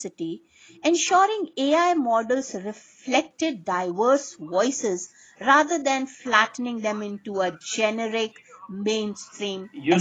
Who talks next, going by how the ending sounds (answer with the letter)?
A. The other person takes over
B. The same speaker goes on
A